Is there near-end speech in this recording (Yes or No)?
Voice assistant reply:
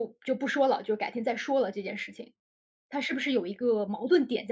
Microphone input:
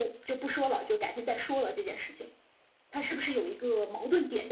No